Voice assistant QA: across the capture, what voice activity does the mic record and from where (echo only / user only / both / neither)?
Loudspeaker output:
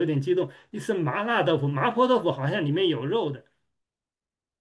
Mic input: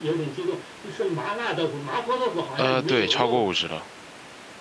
both